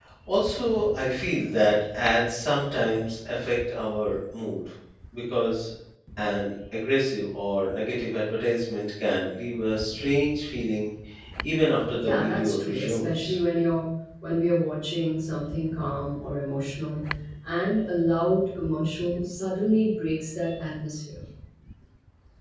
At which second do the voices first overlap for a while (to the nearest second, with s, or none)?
12 s